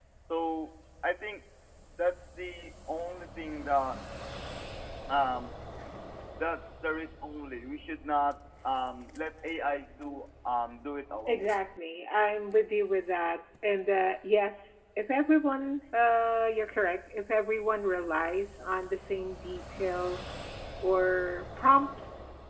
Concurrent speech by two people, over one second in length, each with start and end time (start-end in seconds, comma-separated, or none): none